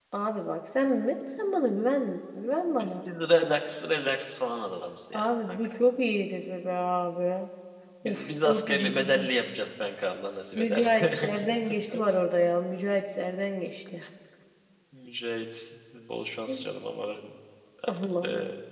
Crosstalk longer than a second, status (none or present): present